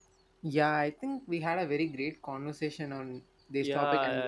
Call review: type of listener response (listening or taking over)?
taking over